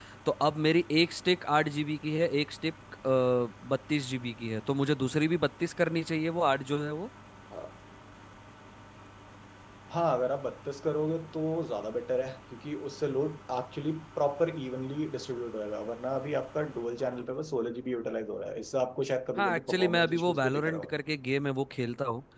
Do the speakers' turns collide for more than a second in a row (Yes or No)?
Yes